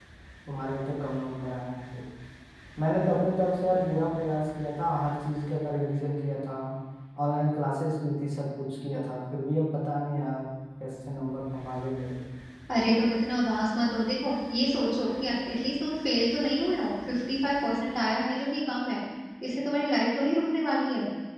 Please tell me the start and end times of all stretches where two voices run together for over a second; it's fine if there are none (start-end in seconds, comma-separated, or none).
none